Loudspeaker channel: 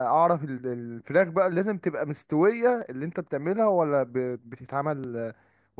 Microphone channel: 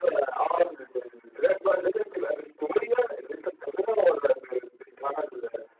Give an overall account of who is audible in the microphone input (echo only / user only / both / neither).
echo only